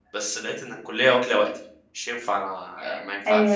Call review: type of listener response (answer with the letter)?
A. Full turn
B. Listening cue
A